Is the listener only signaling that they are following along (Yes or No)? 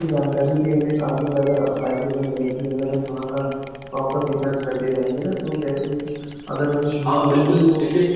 No